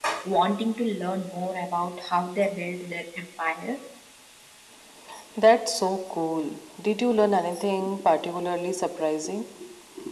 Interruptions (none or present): none